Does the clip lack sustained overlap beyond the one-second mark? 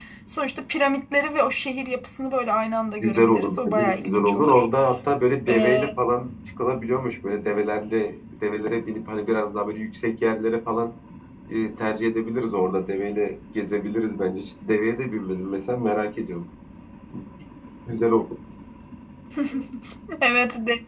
No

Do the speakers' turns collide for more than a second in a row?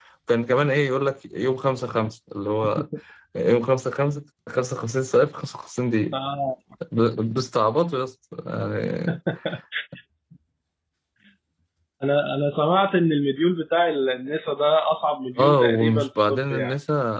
Yes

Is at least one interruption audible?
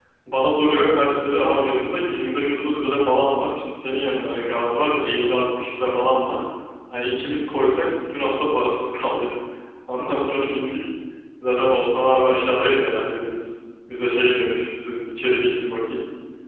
No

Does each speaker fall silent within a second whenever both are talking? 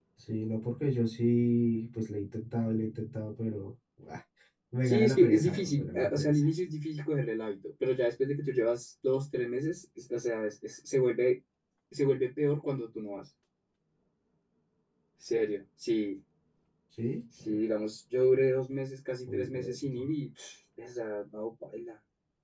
No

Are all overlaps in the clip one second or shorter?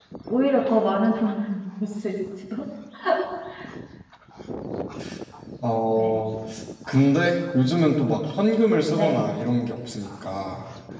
Yes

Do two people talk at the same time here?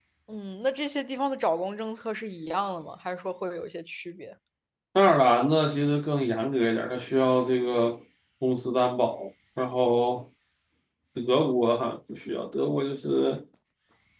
No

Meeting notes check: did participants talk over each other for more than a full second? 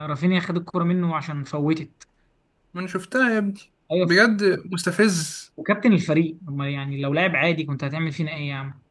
No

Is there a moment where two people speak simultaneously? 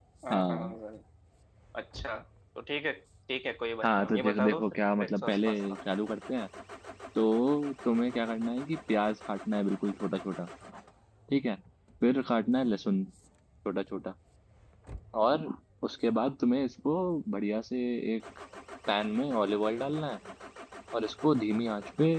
Yes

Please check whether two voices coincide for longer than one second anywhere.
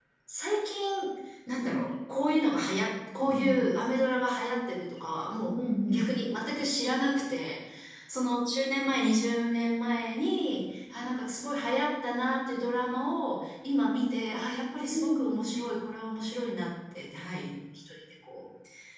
No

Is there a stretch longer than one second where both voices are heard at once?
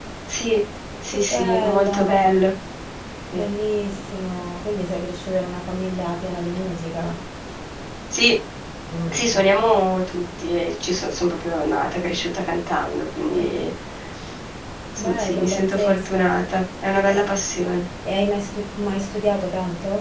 Yes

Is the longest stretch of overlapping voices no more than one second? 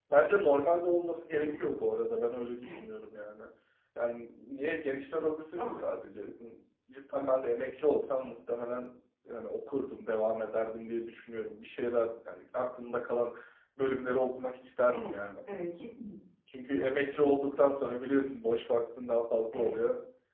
Yes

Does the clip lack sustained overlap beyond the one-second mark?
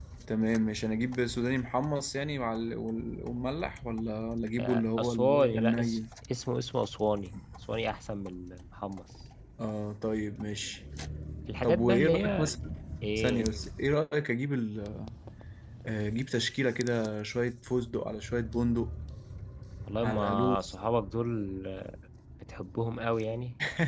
No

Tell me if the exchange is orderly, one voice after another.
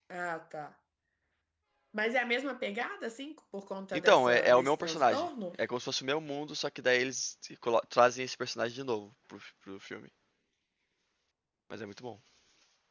No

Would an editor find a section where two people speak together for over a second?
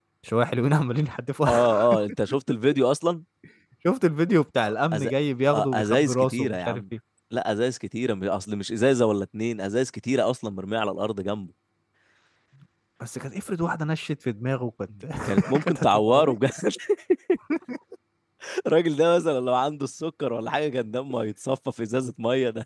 Yes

